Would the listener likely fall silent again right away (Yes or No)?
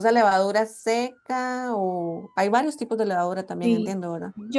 No